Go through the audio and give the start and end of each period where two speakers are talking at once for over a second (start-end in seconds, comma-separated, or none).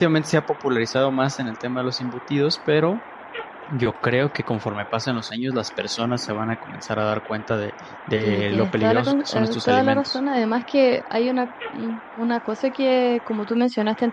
8.2-10.2